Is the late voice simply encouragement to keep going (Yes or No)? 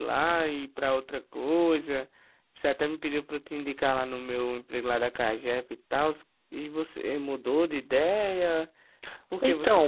Yes